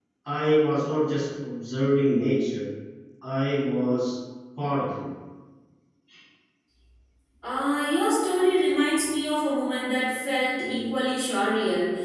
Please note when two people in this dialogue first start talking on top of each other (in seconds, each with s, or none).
none